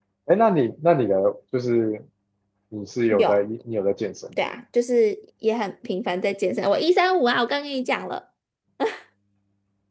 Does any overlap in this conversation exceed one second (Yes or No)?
No